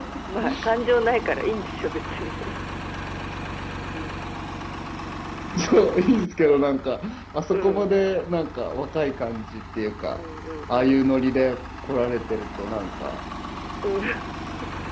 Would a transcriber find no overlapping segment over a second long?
Yes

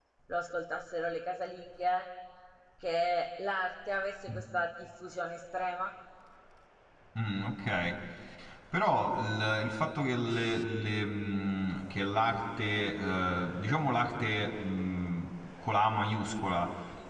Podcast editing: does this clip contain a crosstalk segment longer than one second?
No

